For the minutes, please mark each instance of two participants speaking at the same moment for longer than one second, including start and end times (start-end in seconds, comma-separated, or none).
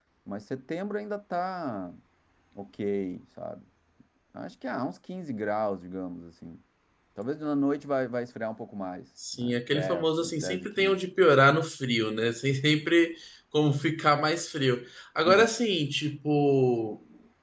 9.3-11.0